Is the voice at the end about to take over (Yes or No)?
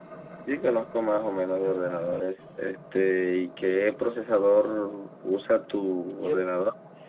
Yes